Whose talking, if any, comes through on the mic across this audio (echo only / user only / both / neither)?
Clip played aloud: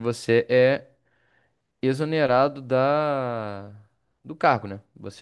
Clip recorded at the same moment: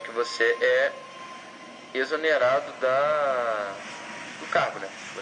echo only